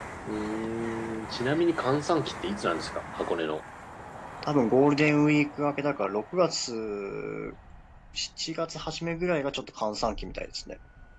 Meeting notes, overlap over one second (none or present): none